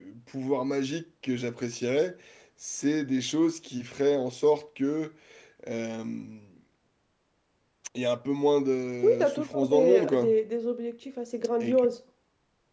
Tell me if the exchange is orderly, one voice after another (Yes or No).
No